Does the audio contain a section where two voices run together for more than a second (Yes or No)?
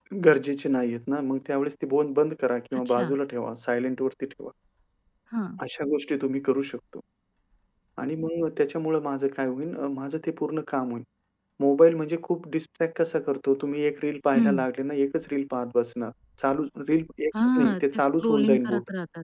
Yes